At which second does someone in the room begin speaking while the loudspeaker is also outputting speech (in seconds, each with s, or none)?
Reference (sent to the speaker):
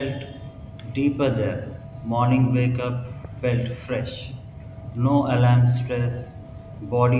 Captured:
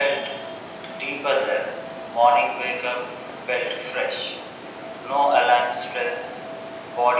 none